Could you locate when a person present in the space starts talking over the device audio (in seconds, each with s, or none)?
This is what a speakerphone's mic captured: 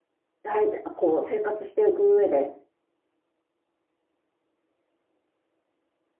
0.4 s